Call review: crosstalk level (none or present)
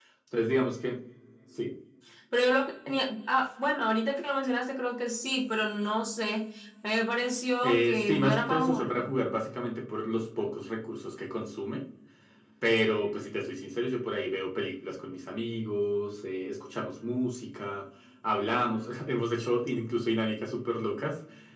present